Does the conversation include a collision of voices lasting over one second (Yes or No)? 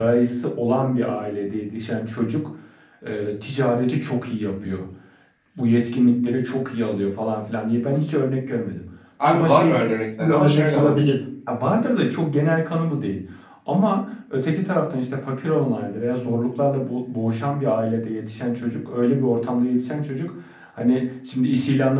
Yes